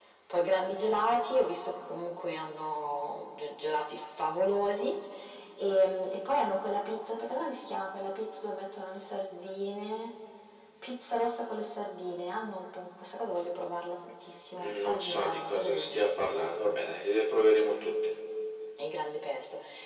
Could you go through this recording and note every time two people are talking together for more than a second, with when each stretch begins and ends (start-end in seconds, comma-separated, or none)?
14.8-16.5